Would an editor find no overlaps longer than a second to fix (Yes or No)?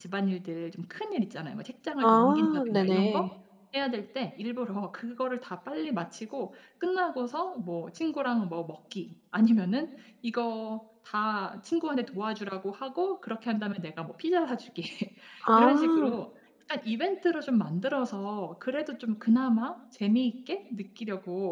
No